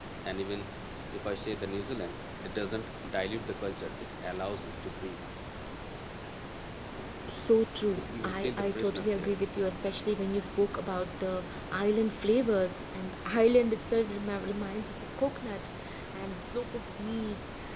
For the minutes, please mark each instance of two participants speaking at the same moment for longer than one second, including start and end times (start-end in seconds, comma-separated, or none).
8.0-9.3